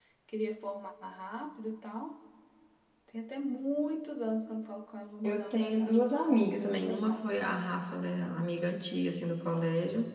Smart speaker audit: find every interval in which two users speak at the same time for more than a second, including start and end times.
5.2-7.3

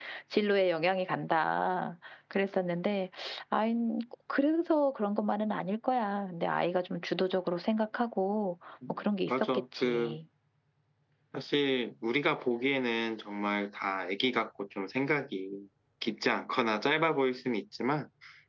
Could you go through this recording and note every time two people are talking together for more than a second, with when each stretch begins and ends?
8.9-10.2

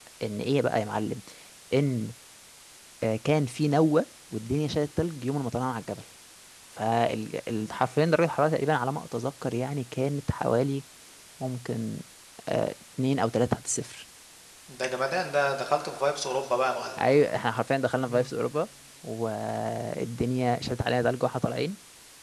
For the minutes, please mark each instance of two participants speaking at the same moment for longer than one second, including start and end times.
none

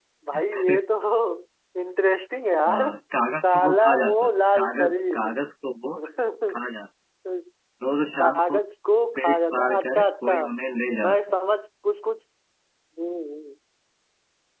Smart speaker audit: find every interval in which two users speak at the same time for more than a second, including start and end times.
3.4-5.4, 9.2-10.4

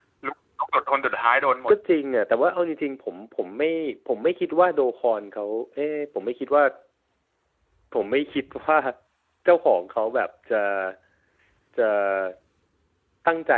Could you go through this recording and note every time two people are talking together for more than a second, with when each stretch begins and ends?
none

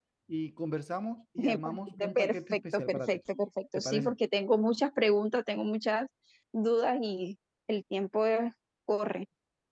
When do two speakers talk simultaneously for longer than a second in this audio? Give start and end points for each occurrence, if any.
1.4-3.2

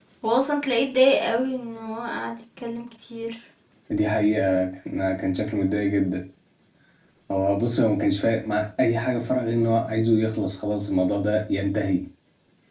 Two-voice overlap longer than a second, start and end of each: none

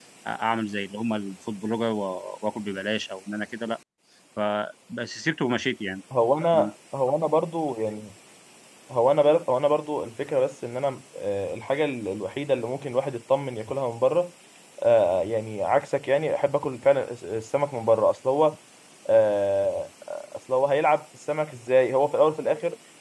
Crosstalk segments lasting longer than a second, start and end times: none

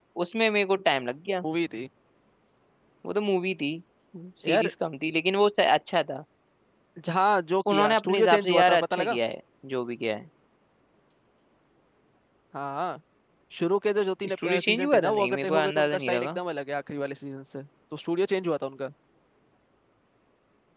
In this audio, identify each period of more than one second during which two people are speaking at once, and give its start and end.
7.7-9.2, 14.3-16.4

